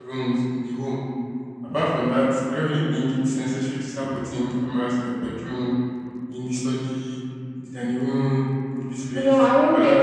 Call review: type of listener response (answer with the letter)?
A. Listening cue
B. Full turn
B